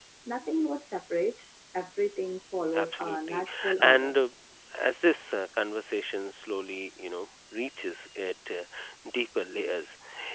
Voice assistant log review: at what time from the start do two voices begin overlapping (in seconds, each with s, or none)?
2.7 s